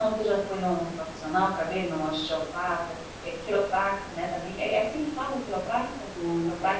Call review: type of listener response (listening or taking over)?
taking over